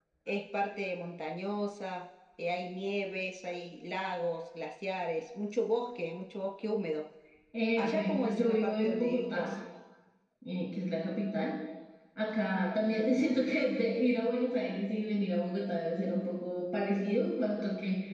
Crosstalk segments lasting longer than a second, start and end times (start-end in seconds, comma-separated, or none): 7.8-9.5